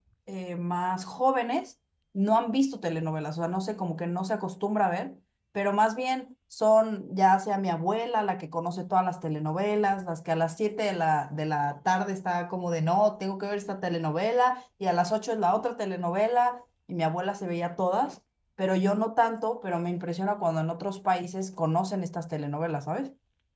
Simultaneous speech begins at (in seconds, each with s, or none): none